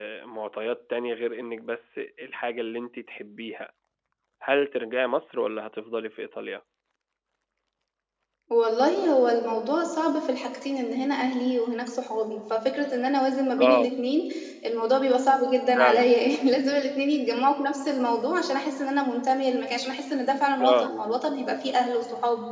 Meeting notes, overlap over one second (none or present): none